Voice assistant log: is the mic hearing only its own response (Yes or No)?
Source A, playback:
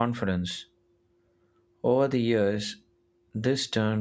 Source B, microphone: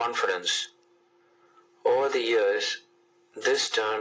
Yes